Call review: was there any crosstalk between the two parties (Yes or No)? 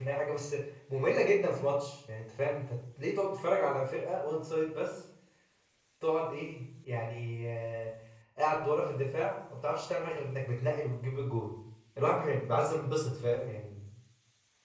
No